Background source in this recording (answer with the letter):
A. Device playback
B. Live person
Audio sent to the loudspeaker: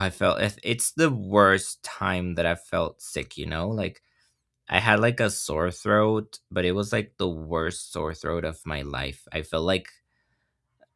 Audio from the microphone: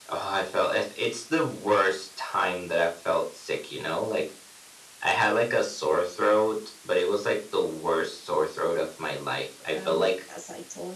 B